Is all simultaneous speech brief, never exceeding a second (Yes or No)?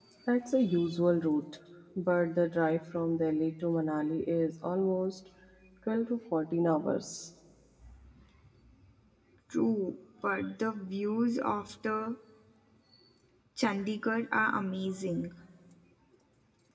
Yes